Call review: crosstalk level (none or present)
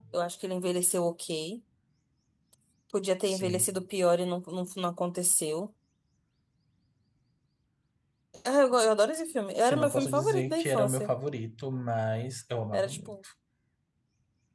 present